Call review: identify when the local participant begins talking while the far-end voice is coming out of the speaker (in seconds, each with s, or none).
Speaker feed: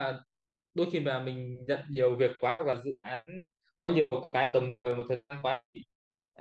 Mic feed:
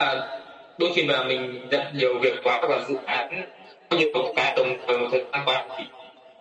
none